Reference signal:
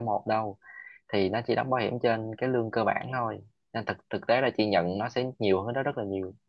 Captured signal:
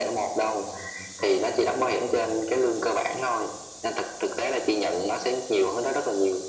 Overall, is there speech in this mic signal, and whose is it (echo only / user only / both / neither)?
echo only